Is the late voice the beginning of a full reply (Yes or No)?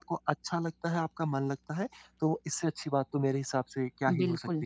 Yes